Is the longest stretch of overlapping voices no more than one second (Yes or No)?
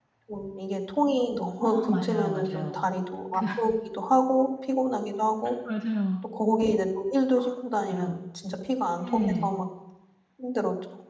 No